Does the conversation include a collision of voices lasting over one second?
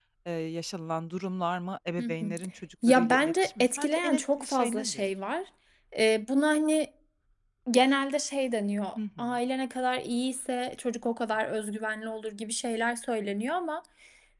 Yes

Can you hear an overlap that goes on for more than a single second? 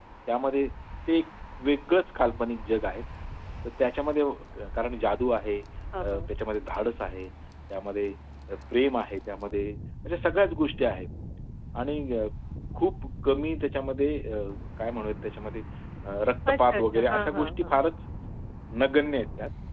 Yes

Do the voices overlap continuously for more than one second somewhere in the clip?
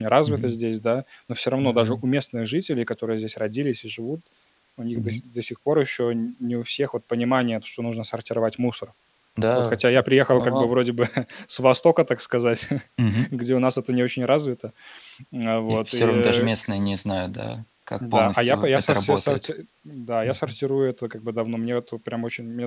Yes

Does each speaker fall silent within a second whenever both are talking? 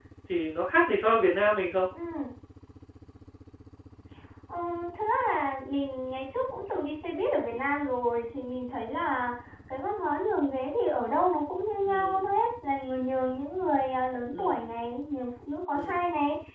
Yes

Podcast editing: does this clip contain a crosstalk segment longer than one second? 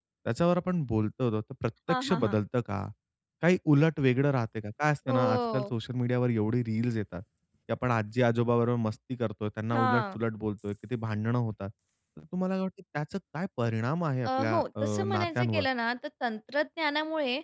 Yes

